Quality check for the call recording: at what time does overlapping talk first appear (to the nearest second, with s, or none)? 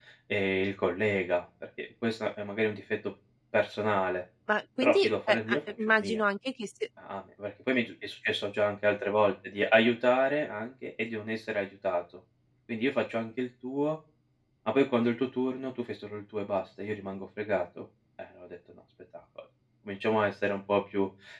5 s